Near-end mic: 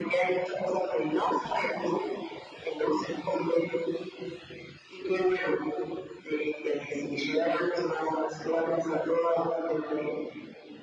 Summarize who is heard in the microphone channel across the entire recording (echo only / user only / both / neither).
echo only